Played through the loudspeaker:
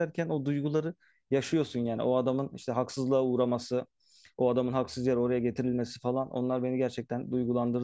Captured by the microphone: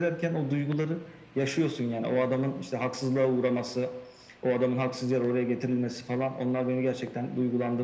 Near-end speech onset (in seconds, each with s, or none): none